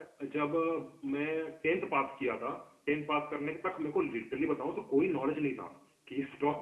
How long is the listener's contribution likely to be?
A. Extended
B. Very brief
B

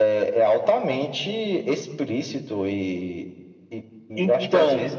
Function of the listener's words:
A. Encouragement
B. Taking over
A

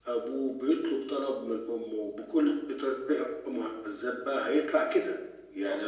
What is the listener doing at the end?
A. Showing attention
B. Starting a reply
A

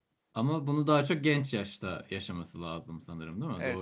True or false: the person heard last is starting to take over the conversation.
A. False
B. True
B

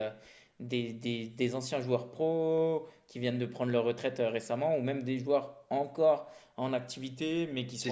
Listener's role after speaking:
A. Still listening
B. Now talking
A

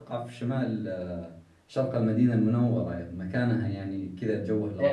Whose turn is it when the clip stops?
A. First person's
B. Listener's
B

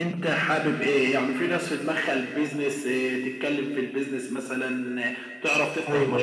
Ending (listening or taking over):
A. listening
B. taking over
A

